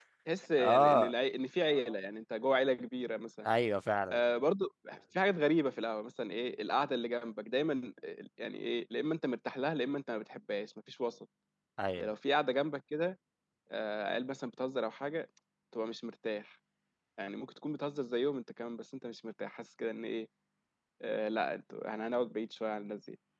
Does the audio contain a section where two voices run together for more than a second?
No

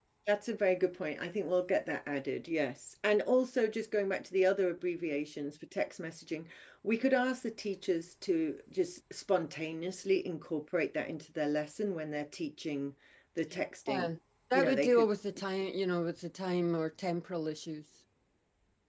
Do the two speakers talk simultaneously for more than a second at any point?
No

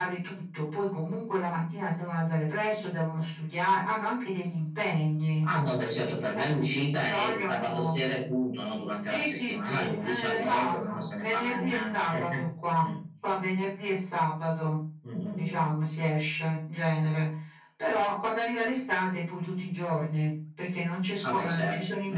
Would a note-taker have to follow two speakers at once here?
Yes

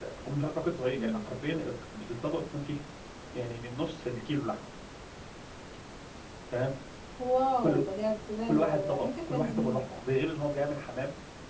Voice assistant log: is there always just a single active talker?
No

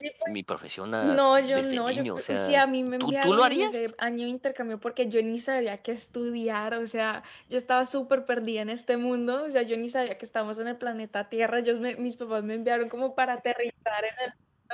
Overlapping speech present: Yes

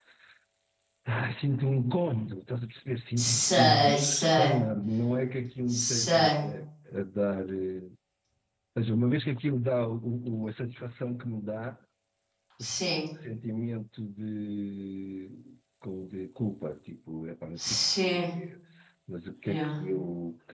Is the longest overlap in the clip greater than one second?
Yes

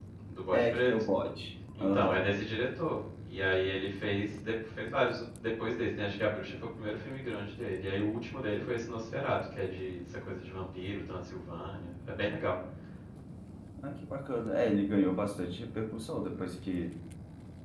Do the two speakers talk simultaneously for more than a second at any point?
No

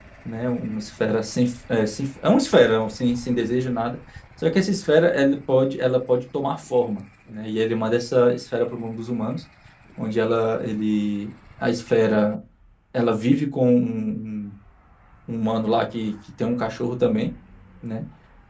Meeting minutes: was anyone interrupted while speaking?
No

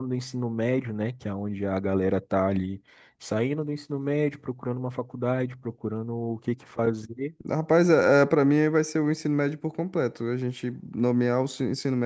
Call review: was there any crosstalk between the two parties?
No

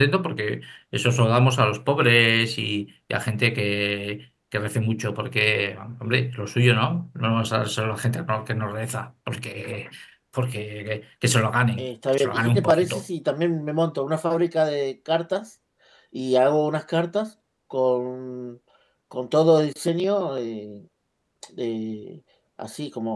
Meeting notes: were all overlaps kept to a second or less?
No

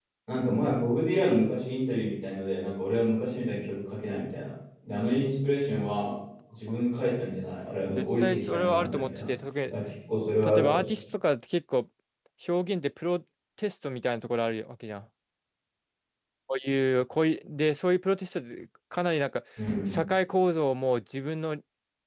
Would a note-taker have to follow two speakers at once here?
Yes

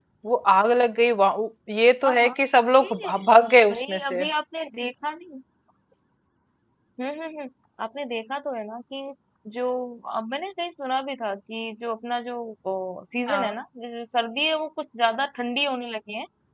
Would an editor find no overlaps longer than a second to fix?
Yes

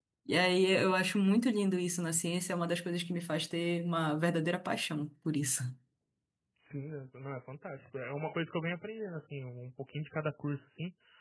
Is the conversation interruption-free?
Yes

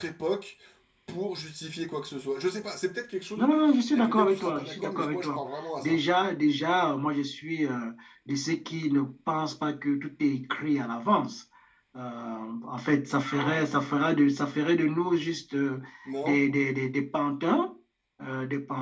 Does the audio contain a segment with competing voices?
Yes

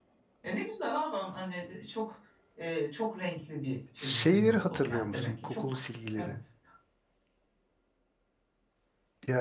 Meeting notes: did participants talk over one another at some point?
Yes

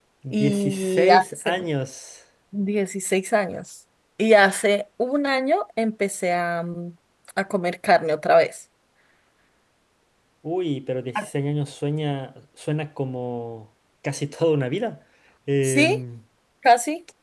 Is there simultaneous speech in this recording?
Yes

